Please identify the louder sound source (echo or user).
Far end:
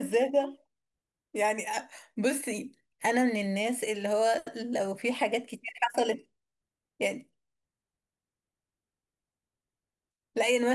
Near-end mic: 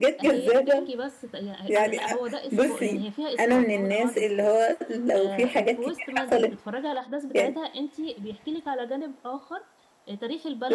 echo